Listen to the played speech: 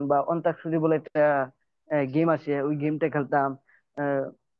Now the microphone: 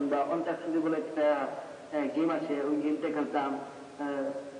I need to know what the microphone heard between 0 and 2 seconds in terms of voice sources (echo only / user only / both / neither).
echo only